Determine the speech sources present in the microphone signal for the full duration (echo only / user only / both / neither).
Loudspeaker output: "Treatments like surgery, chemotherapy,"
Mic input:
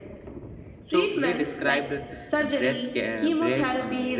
both